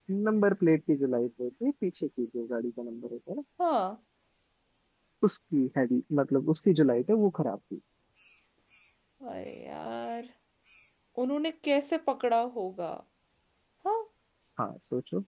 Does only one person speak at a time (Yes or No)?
Yes